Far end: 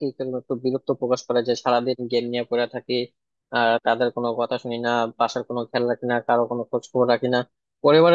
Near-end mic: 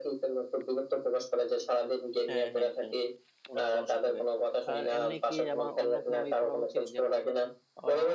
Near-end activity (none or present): present